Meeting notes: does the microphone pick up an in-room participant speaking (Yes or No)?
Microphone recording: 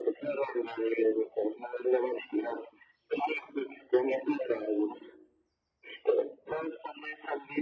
No